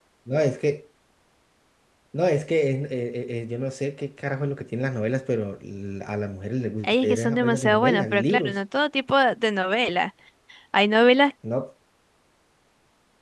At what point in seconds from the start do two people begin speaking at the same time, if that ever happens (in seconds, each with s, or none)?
6.8 s